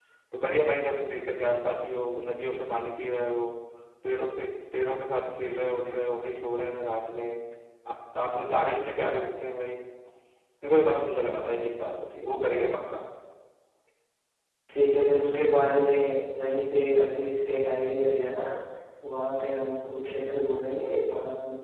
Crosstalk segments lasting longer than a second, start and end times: none

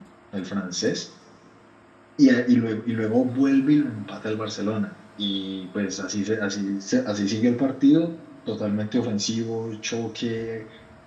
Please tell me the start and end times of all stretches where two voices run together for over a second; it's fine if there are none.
none

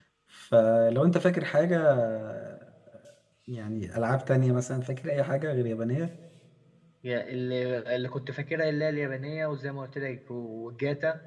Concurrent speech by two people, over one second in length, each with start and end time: none

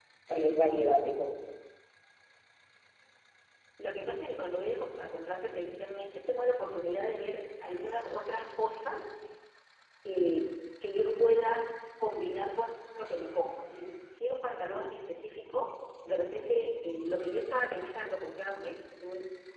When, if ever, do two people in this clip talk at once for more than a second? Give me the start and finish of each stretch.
none

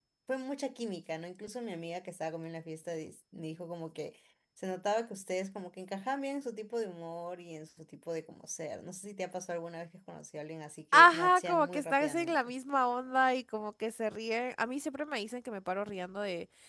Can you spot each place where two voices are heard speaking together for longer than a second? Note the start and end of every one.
10.9-12.5

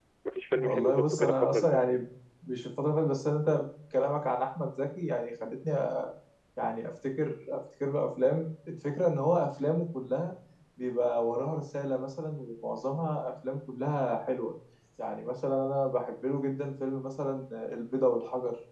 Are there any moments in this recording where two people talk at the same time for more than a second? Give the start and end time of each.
0.5-1.8

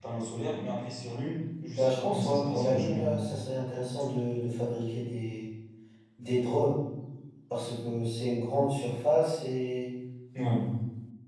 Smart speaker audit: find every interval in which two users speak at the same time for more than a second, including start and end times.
1.8-3.0

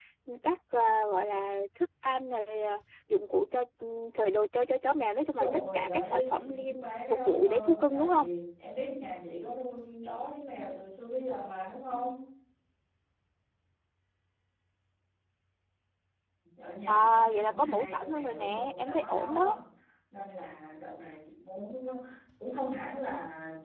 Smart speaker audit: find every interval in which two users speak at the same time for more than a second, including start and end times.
5.4-8.3, 16.9-19.6

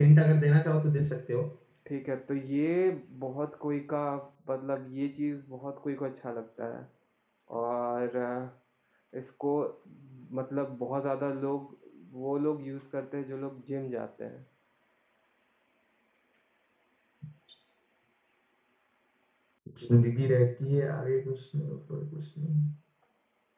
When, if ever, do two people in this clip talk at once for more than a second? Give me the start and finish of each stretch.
none

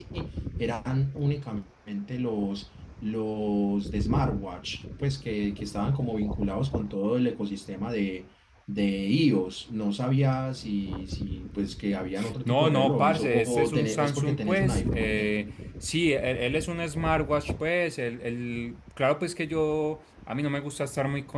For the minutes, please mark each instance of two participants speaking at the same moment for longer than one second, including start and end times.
12.4-15.3

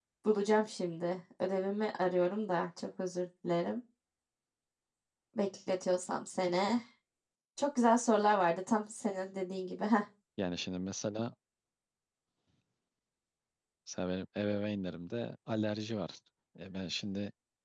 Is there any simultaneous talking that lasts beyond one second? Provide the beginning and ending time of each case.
none

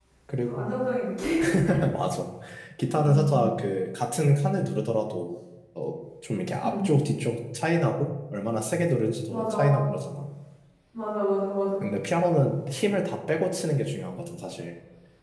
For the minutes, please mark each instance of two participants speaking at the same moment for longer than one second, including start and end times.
none

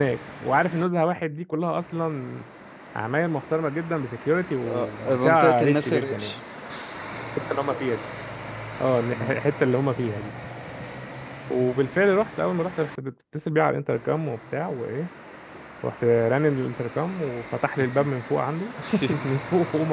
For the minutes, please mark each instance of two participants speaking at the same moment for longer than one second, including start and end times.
4.6-6.4

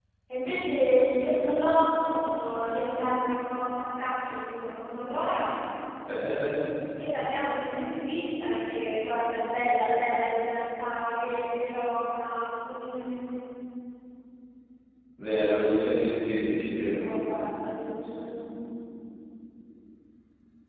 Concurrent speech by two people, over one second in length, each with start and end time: none

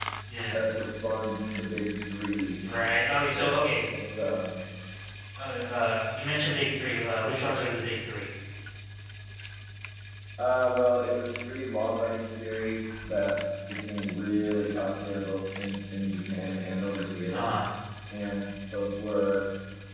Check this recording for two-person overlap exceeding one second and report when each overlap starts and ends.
none

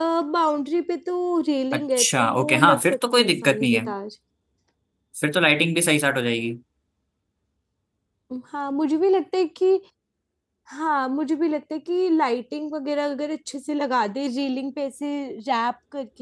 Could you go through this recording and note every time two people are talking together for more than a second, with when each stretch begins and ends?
1.7-3.8

